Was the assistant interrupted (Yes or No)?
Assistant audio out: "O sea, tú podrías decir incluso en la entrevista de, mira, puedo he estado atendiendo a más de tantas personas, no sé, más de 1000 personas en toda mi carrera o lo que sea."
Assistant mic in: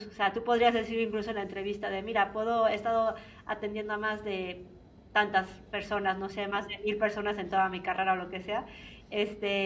No